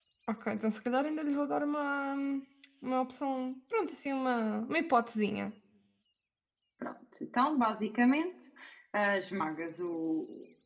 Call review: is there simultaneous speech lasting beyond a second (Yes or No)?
No